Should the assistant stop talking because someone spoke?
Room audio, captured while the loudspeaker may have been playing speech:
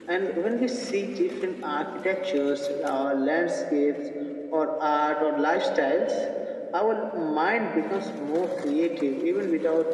No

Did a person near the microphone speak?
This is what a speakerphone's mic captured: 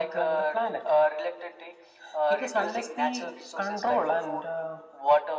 No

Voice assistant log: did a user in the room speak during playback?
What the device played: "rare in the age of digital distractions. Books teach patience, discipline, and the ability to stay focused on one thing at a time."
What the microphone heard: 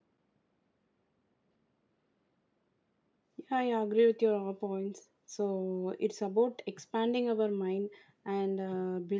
Yes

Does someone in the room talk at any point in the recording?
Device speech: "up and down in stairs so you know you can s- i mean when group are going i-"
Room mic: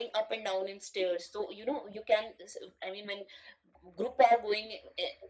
No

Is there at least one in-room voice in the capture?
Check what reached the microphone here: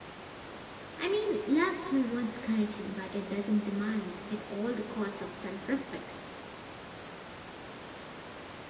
Yes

